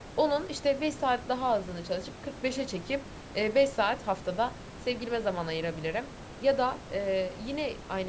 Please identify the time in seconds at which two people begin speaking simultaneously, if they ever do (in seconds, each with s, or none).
none